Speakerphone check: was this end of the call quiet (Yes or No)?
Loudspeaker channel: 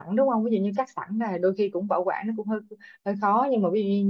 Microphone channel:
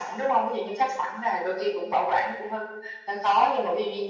Yes